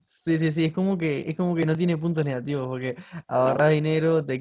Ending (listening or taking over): listening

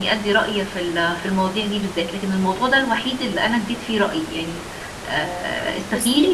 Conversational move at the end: listening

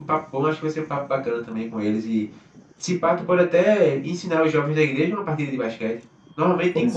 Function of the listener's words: taking over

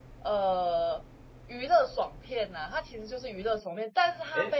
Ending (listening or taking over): listening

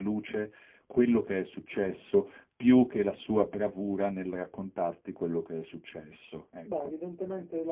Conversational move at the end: taking over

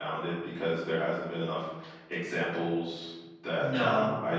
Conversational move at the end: taking over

